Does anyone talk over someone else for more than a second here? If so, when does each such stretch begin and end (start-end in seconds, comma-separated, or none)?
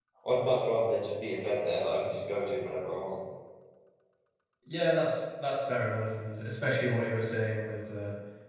none